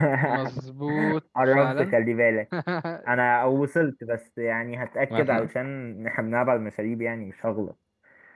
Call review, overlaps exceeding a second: none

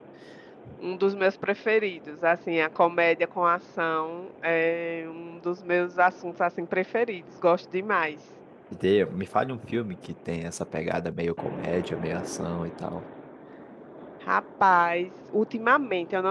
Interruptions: none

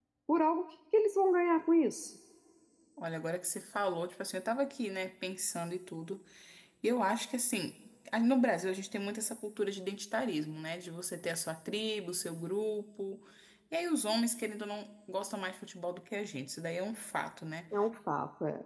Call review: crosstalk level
none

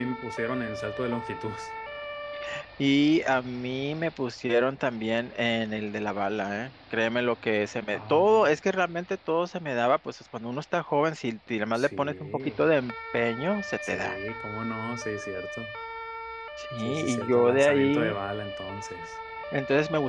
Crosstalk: present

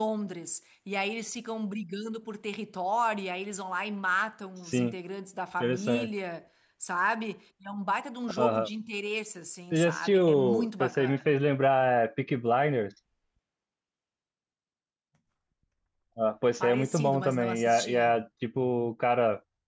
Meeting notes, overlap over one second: present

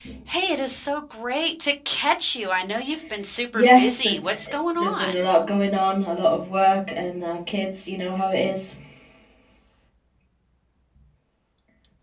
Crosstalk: present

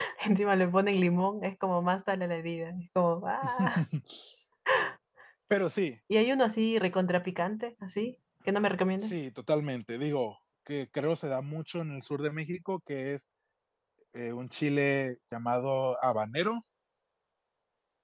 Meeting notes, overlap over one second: none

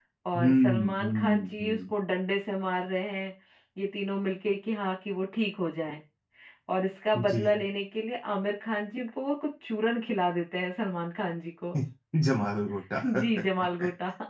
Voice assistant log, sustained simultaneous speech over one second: present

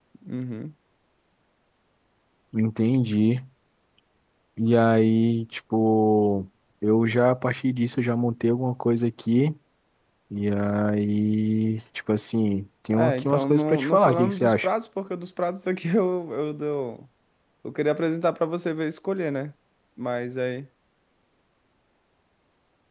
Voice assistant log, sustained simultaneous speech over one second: present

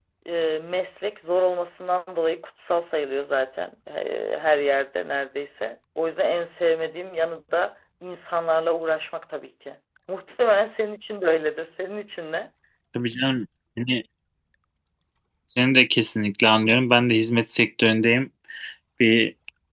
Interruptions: none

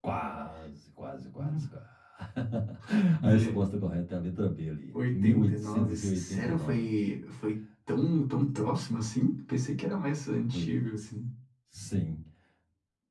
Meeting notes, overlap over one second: present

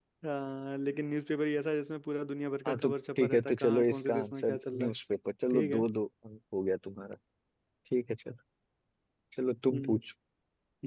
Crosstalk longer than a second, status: present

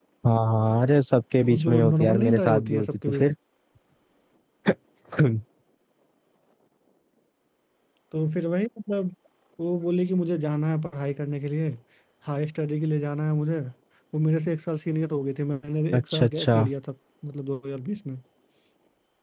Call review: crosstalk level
present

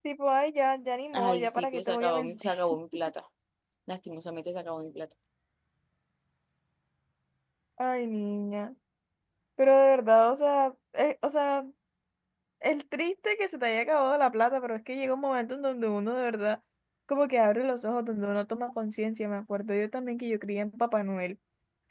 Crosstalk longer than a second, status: present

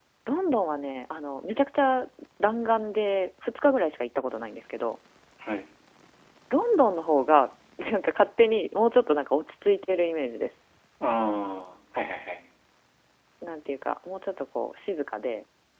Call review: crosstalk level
none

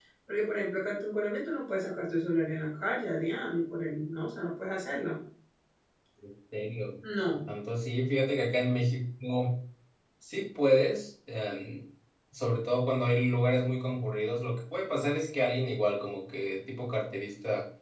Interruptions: none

